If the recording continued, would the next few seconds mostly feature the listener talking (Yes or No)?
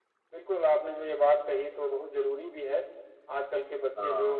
No